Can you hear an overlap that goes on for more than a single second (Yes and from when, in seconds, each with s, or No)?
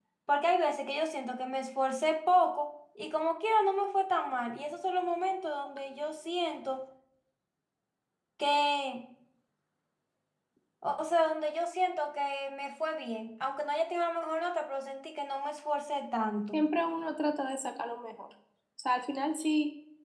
No